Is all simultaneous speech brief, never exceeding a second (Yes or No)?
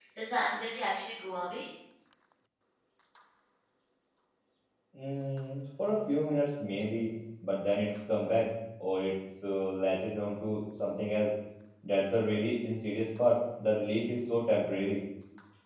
Yes